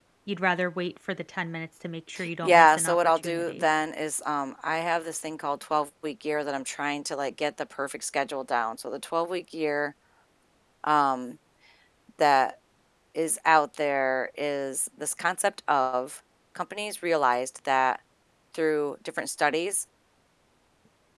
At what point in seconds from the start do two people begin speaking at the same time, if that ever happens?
2.4 s

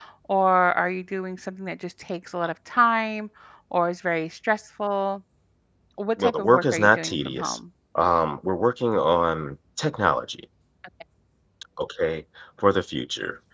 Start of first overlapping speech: 6.2 s

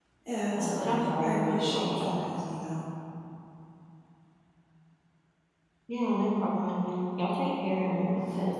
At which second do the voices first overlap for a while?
0.6 s

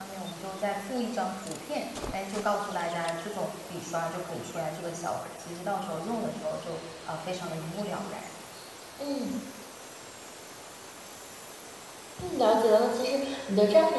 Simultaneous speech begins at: none

